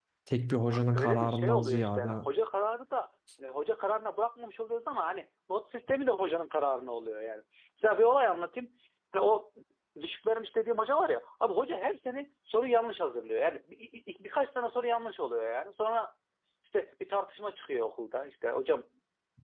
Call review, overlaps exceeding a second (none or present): present